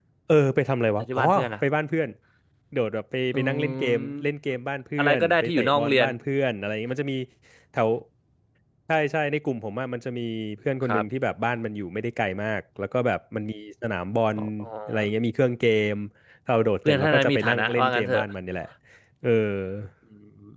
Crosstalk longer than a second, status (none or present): present